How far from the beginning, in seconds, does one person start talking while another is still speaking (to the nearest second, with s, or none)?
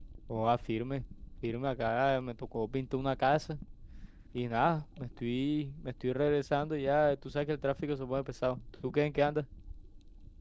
none